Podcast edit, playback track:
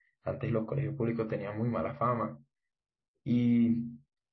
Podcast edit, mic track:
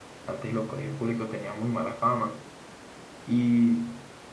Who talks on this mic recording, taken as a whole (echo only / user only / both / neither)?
echo only